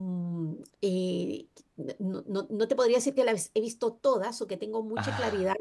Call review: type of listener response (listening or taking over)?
listening